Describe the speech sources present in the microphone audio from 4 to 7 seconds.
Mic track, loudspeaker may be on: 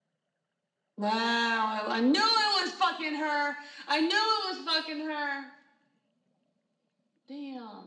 echo only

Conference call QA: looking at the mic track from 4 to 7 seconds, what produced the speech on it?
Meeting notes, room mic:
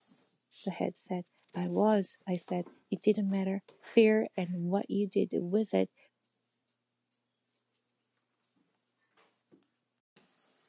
user only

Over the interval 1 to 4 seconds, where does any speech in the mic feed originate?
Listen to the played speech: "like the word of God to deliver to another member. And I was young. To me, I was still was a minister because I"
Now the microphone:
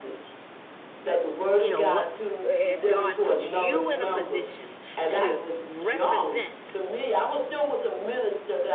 both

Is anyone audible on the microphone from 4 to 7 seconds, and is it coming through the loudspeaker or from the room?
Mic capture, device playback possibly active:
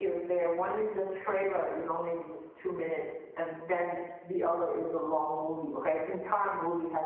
user only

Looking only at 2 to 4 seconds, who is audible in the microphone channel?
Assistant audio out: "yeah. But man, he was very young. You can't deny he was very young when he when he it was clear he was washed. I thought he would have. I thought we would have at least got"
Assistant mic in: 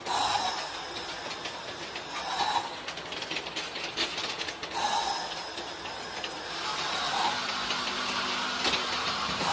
neither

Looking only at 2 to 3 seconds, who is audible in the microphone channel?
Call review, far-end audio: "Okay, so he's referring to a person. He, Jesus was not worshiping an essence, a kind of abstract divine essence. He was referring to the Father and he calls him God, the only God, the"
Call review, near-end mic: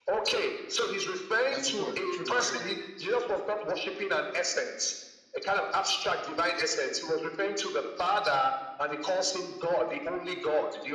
both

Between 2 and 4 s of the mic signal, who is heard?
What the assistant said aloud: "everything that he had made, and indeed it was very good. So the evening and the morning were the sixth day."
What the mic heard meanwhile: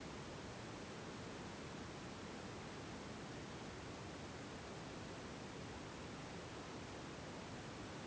neither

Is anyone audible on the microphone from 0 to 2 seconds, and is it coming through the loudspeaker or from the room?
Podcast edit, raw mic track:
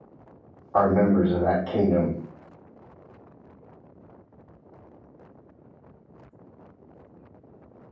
user only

